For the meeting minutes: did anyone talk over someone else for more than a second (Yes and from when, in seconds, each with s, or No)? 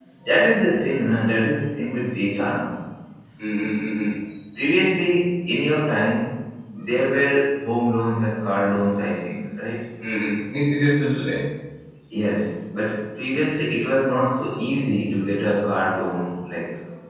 No